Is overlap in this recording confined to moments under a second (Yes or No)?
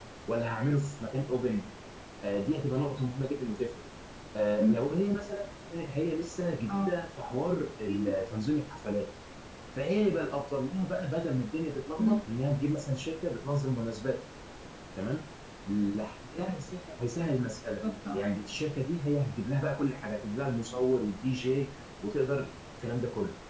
Yes